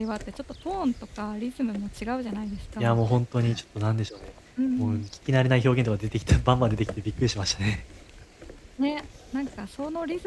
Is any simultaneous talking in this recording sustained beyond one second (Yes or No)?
No